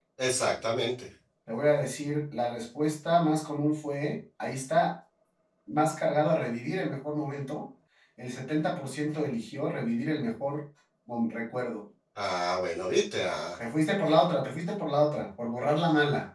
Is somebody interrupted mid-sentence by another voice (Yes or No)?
No